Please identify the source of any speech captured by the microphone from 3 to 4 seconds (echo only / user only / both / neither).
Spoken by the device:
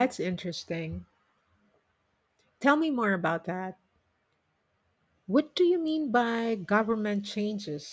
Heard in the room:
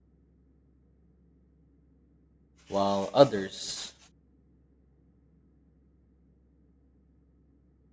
user only